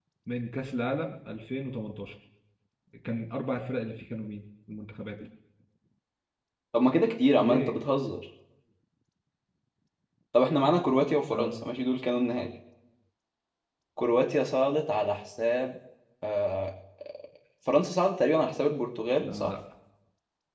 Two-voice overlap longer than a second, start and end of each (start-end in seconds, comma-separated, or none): none